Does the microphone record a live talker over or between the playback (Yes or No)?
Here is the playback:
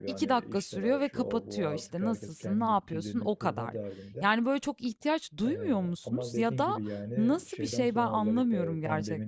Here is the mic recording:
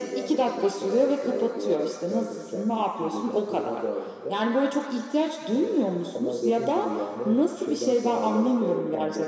No